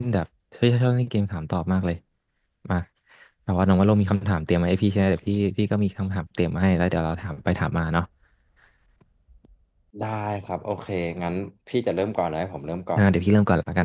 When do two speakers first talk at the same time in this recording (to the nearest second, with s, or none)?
none